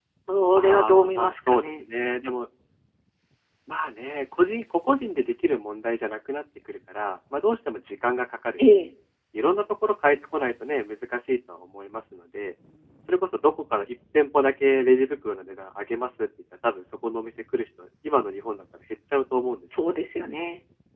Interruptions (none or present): present